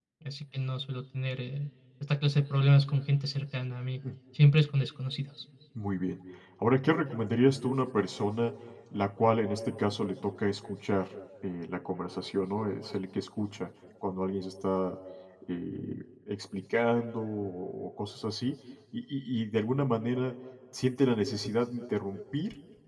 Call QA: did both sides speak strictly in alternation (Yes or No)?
Yes